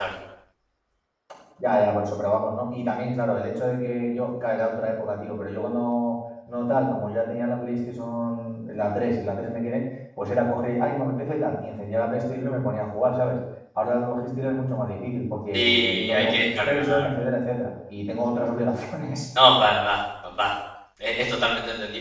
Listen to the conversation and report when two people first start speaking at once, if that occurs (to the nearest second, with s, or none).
16 s